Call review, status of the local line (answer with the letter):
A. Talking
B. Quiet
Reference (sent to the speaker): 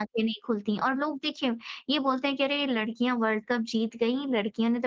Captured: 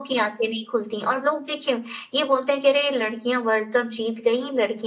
B